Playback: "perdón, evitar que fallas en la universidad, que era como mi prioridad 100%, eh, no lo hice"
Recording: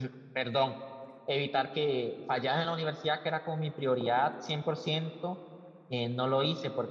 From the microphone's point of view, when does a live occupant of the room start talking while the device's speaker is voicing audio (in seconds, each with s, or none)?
none